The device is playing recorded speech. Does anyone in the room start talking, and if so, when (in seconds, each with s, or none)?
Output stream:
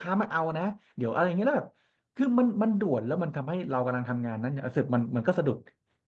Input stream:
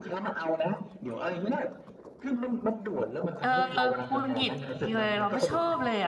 3.4 s